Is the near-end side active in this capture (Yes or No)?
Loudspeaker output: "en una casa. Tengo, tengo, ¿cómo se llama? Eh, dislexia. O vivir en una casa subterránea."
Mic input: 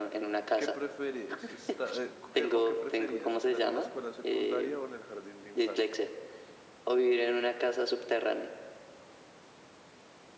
Yes